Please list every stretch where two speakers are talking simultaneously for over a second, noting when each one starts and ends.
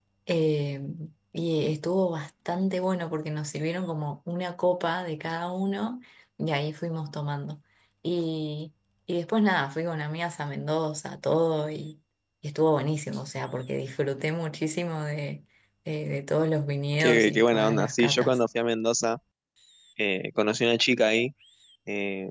17.0-18.4

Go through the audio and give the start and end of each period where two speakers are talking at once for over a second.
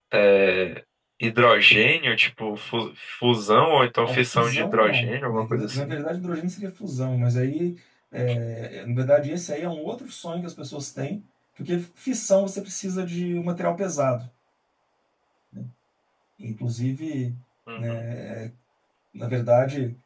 4.0-6.0

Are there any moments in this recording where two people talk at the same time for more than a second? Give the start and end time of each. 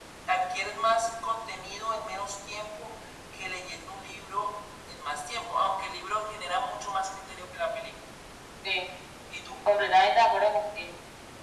none

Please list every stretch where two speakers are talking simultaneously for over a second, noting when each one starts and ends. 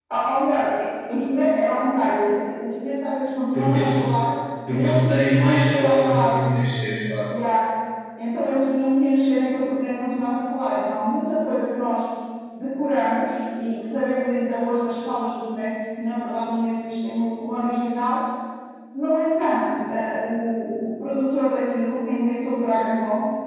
4.7-6.4

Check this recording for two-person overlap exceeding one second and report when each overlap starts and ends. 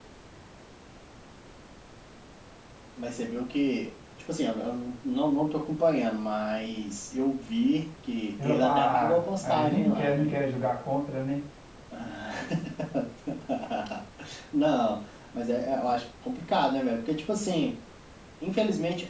8.4-10.3

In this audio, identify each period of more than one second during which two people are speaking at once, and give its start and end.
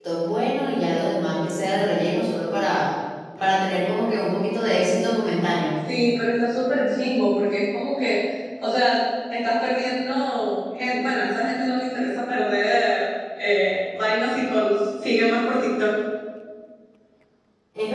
none

